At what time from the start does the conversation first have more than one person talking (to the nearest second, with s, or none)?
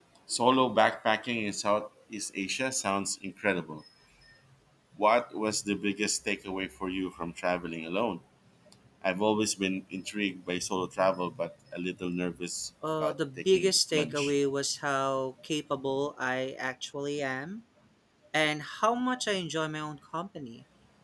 13 s